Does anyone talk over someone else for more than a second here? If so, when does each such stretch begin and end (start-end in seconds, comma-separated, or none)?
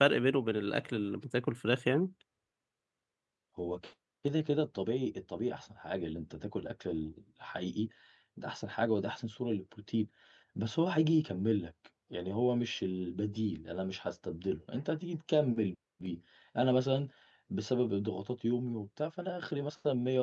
none